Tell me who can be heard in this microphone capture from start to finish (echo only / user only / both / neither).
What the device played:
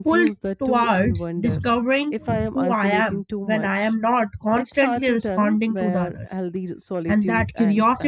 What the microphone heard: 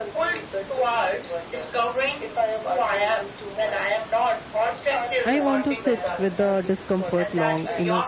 both